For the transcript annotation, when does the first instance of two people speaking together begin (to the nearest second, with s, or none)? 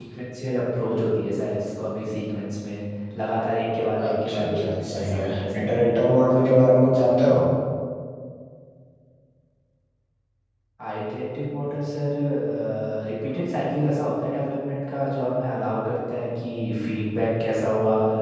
4 s